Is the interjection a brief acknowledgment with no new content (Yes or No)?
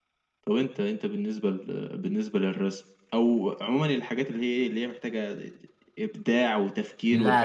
No